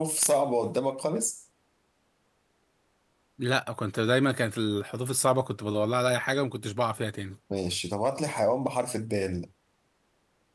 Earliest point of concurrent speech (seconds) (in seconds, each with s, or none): none